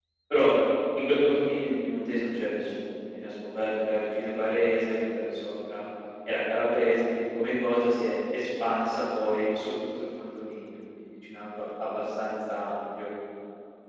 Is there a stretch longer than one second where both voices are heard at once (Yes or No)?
No